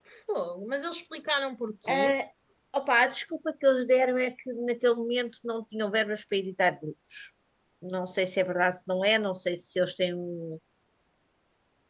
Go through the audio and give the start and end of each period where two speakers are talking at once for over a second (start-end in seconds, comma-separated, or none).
none